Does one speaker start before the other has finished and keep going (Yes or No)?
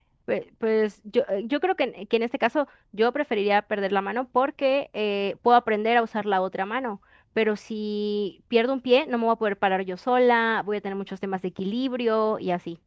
No